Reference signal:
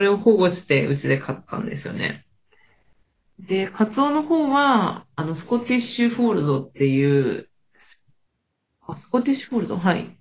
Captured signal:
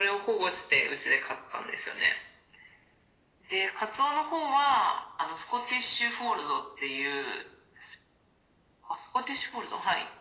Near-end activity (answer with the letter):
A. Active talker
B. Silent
B